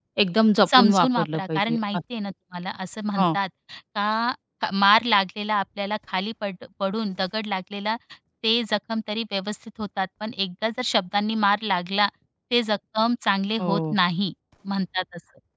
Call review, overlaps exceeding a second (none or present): present